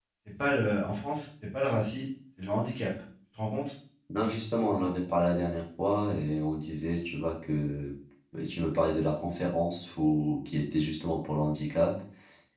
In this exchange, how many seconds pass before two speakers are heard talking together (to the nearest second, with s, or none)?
none